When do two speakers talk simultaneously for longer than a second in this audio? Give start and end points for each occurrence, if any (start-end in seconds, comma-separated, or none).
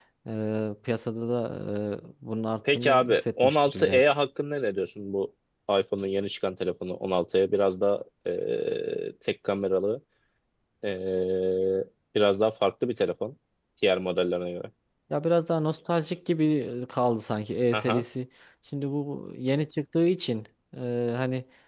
2.7-4.0